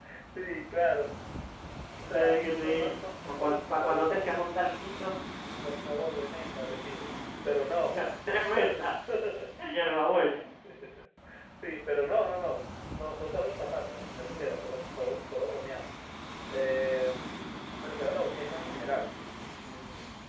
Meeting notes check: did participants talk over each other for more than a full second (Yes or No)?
Yes